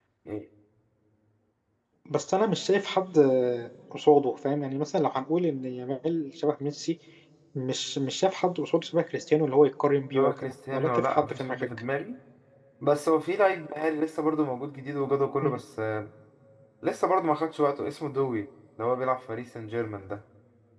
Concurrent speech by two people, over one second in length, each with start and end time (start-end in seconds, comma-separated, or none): 10.1-11.7